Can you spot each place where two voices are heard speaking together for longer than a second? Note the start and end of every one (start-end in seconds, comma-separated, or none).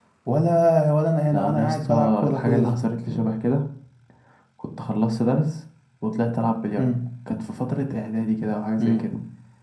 1.3-2.8